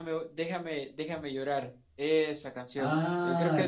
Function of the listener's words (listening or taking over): taking over